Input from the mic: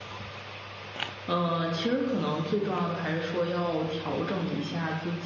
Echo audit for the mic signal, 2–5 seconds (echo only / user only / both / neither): user only